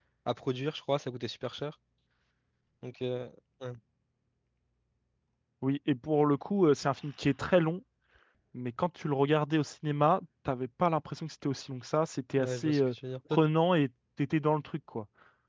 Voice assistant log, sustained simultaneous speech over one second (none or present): none